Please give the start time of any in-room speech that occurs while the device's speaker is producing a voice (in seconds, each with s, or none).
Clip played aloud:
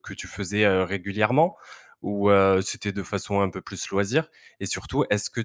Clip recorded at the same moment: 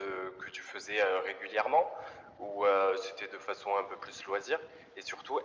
none